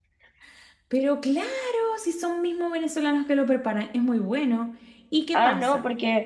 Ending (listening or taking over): taking over